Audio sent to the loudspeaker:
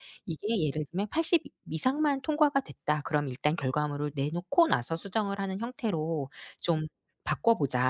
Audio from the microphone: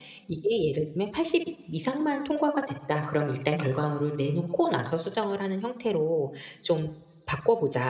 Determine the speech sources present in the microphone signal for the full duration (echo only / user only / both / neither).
echo only